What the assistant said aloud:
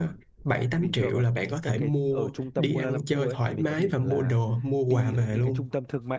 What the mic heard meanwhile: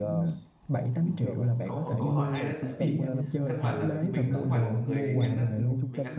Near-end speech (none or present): present